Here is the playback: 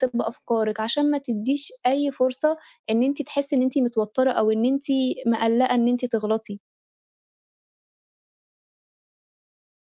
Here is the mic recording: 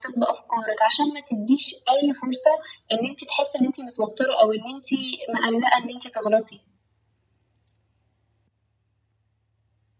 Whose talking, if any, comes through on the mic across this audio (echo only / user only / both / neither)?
echo only